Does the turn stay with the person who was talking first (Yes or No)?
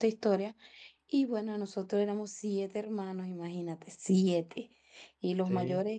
Yes